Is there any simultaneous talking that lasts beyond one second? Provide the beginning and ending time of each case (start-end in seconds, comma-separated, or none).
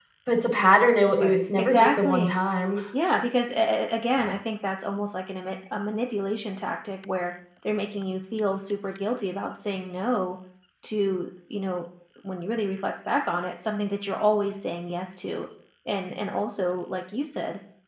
1.1-2.4